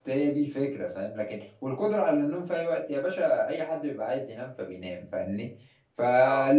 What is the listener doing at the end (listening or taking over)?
listening